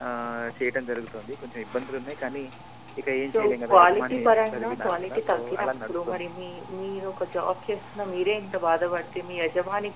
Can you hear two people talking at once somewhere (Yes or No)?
Yes